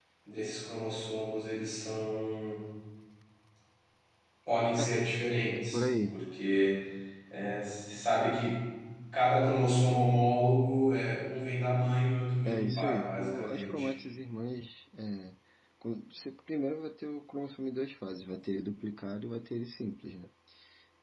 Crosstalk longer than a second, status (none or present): present